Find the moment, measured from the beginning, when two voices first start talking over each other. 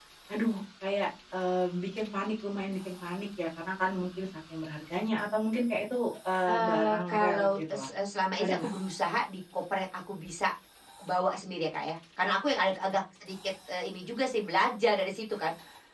6.5 s

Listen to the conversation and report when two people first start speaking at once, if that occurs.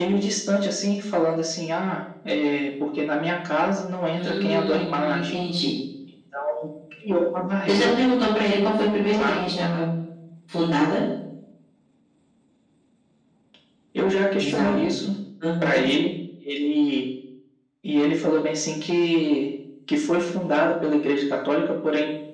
4.2 s

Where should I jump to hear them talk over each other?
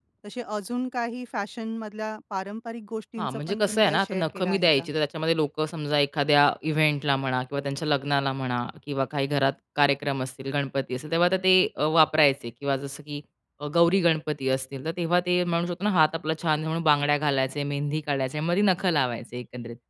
3.2 s

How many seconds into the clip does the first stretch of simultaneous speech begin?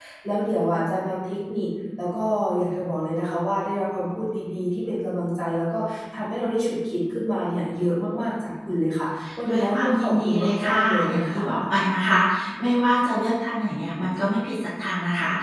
9.5 s

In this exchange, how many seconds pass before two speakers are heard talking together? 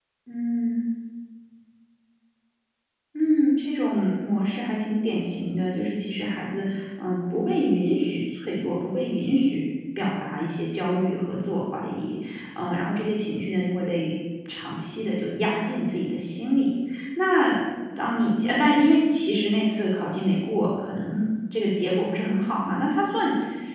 none

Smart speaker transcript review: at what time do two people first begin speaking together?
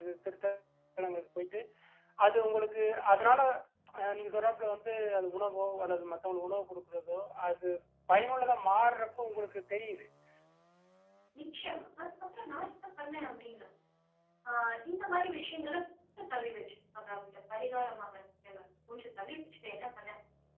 none

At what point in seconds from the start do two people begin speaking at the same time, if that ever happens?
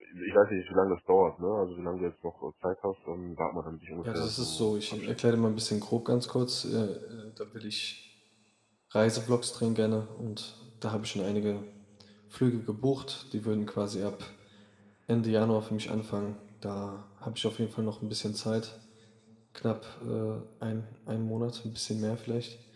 4.0 s

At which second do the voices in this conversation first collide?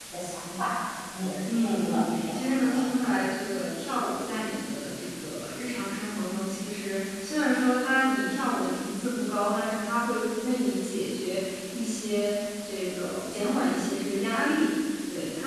1.4 s

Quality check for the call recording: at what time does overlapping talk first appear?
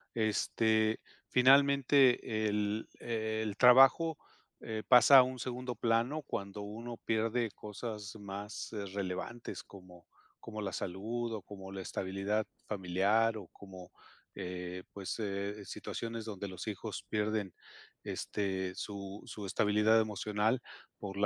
none

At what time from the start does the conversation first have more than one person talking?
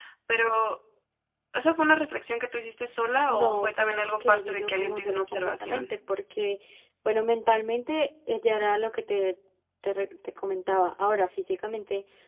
3.3 s

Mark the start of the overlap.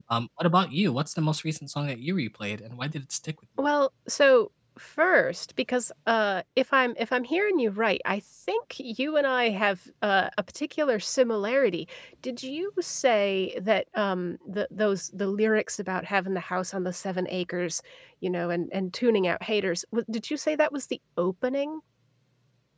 none

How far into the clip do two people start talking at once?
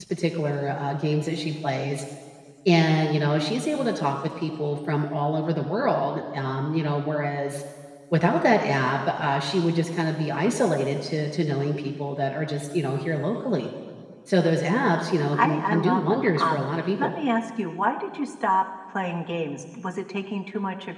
15.2 s

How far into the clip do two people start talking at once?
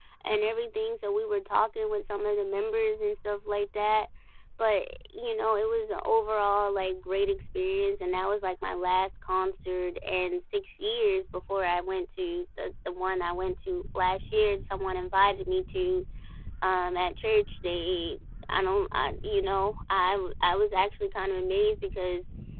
none

